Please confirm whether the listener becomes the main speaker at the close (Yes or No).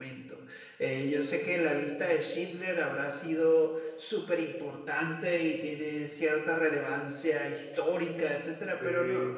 No